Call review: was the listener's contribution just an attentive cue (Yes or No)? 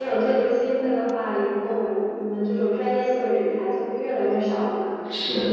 No